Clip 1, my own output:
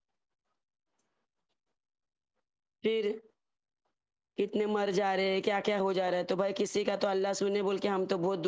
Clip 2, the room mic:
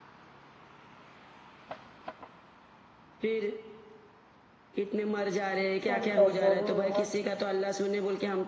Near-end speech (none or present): present